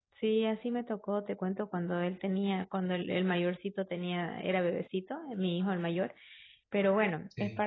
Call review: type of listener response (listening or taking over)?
listening